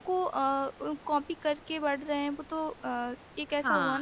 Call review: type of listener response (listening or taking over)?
taking over